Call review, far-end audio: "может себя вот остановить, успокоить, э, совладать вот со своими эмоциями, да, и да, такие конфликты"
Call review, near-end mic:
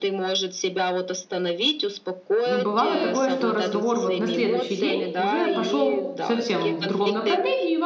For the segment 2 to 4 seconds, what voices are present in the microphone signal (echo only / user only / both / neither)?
both